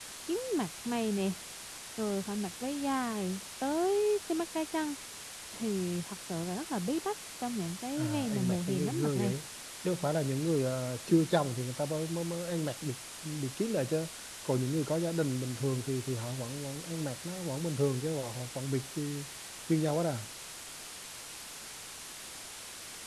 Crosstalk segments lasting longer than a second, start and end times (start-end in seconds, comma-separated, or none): 8.0-9.3